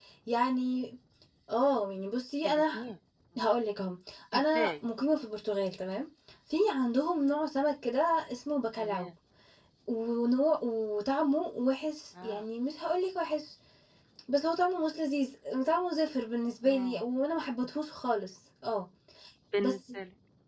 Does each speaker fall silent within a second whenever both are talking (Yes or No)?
Yes